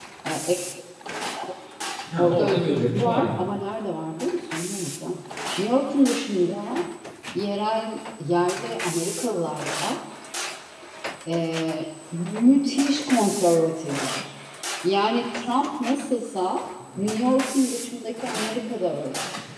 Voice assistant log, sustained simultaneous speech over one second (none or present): present